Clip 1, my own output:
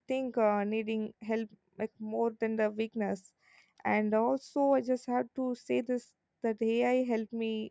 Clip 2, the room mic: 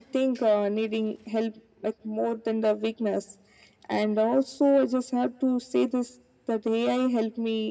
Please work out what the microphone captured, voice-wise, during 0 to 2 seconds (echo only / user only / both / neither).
echo only